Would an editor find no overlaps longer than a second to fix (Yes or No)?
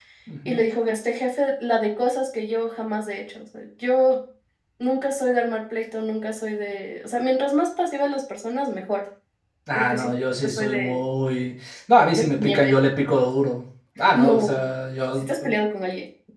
No